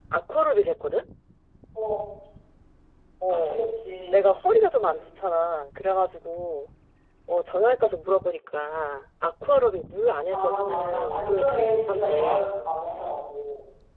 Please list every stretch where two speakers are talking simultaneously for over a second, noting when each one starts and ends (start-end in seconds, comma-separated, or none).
10.3-12.5